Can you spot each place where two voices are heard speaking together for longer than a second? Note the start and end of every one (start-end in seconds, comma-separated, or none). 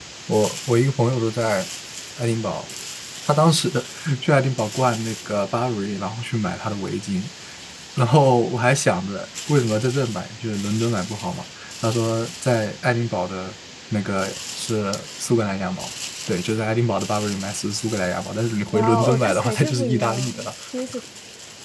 18.7-20.5